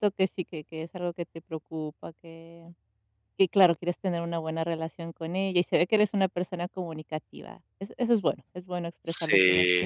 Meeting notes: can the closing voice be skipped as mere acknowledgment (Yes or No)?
Yes